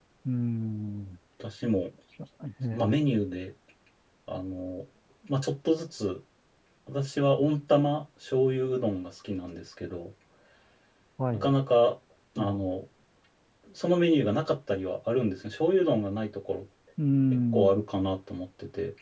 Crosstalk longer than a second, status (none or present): none